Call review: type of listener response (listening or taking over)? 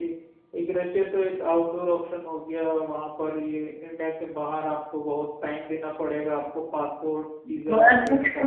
taking over